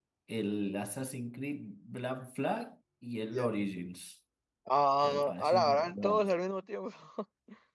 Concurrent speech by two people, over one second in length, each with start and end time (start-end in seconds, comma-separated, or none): 5.0-6.3